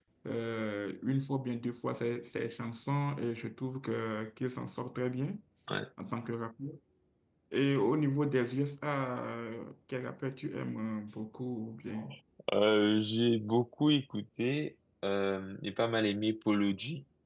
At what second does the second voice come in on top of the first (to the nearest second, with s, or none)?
none